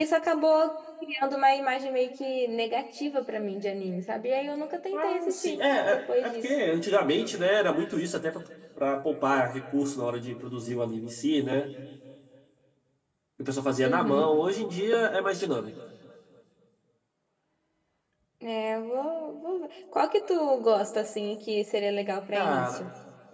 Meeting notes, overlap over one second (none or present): present